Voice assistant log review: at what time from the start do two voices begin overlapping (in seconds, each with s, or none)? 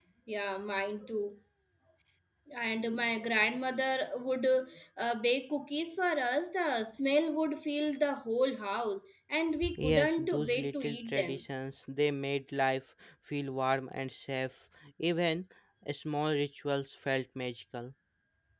9.6 s